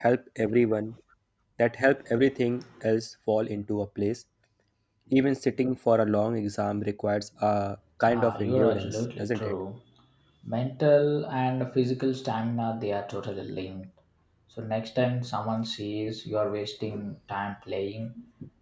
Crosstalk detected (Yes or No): Yes